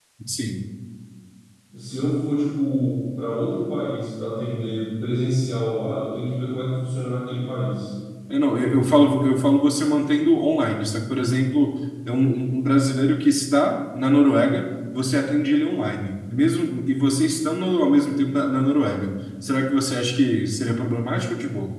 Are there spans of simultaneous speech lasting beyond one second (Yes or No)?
No